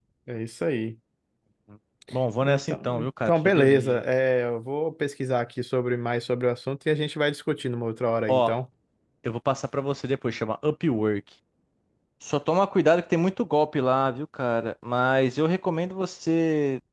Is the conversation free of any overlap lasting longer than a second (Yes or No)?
No